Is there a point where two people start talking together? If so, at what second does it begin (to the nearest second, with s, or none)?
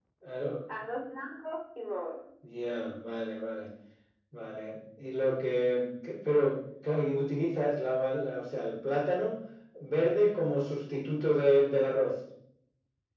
none